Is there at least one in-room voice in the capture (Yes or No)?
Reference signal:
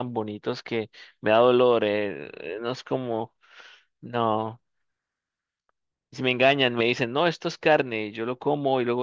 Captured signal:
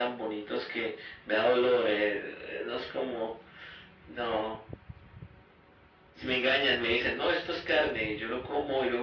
No